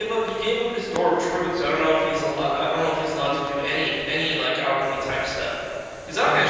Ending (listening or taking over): listening